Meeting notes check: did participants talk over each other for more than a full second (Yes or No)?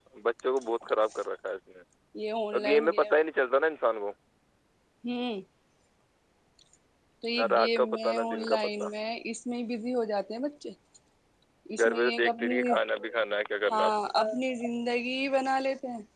Yes